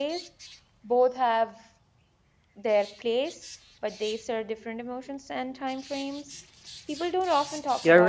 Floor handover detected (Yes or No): Yes